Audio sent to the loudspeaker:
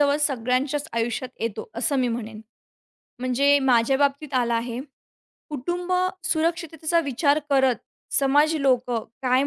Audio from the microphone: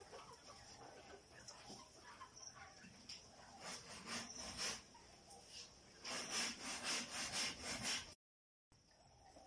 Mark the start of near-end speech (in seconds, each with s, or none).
none